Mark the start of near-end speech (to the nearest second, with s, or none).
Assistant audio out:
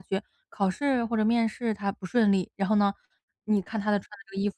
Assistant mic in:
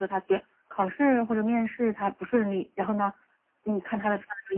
none